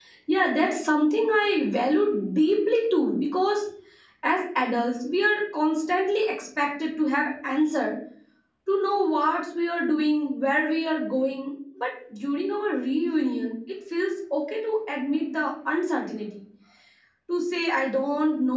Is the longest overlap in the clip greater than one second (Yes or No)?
No